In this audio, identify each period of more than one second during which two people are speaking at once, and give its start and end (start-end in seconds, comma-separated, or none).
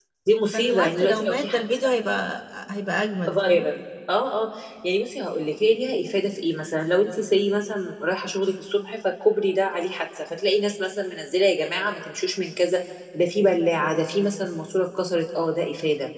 0.5-1.9